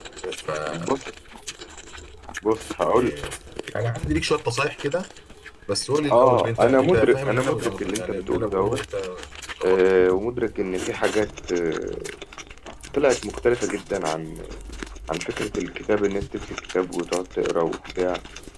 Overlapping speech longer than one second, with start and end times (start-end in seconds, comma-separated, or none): 6.1-8.8